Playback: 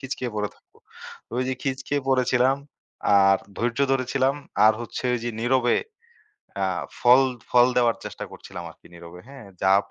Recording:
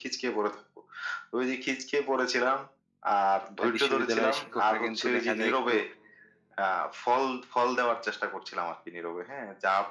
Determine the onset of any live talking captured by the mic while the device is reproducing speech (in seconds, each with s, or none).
3.6 s